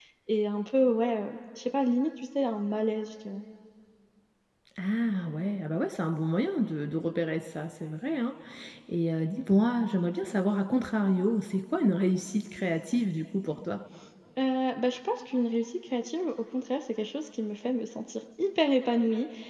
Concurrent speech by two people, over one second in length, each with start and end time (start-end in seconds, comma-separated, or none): none